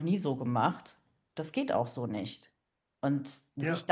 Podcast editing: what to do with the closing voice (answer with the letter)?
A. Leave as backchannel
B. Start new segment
A